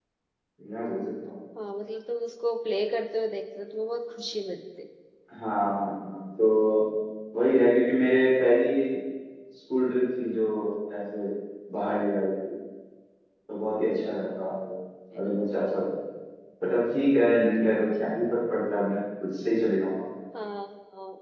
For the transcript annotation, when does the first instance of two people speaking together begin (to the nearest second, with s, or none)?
none